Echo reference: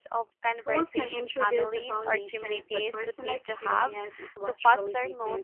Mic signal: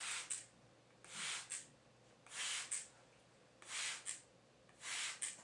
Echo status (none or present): none